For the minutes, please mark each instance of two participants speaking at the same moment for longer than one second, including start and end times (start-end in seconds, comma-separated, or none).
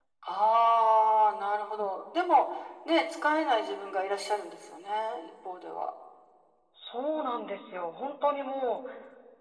none